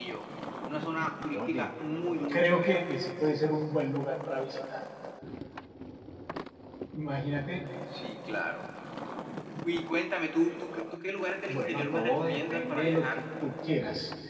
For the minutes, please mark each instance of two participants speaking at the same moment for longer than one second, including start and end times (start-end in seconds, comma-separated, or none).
11.5-13.2